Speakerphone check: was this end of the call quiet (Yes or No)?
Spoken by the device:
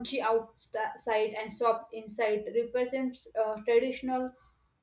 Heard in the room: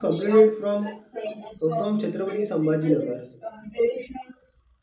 No